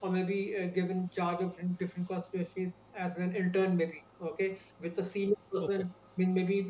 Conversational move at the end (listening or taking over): listening